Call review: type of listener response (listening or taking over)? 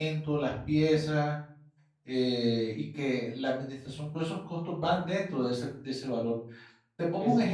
taking over